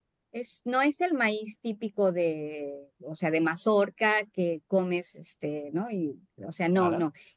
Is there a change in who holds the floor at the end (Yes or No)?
No